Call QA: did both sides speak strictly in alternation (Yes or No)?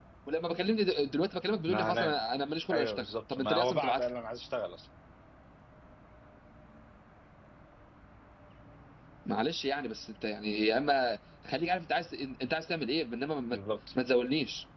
No